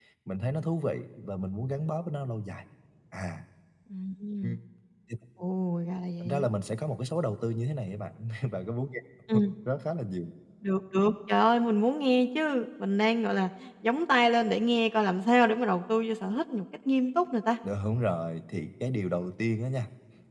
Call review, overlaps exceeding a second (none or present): none